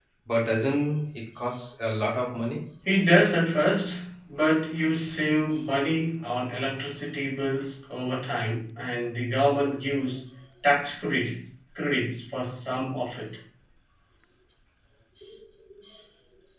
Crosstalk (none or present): none